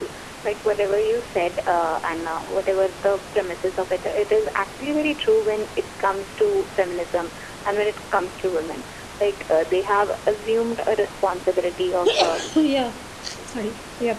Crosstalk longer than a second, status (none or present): none